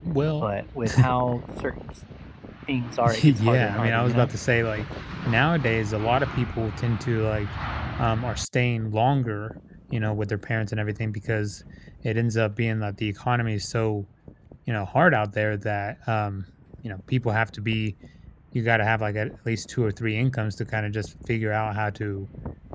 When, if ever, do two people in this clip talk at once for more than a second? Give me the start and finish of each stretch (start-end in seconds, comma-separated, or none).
3.0-4.3